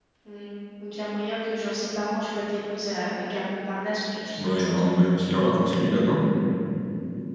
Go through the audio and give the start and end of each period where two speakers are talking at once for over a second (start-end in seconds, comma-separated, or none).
none